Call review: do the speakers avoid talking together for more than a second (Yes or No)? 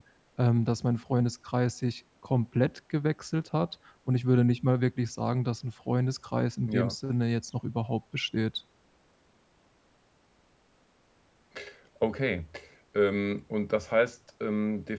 Yes